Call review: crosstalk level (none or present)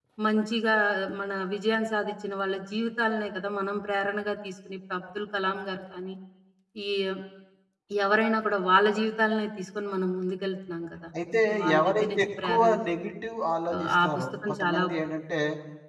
present